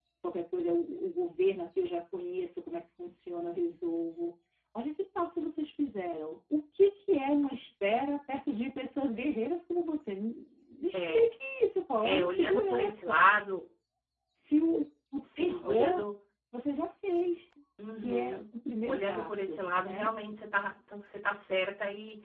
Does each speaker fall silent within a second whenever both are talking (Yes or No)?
No